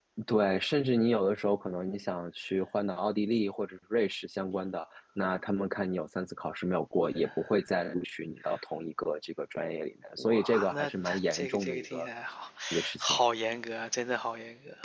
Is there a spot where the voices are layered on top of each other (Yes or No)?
Yes